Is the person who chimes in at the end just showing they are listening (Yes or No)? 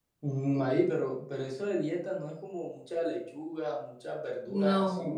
Yes